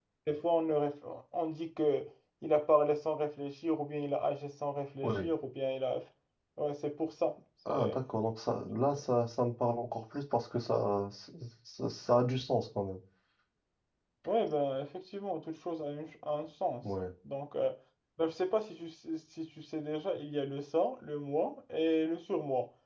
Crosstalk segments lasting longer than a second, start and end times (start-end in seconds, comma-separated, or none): none